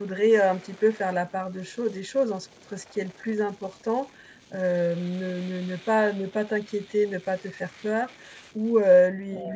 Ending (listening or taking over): listening